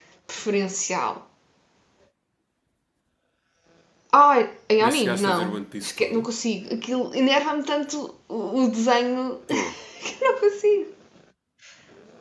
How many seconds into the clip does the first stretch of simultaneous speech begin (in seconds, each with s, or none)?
4.8 s